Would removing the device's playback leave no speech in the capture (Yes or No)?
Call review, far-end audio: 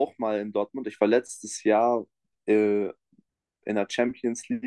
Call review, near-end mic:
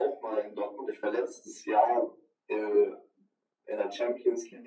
Yes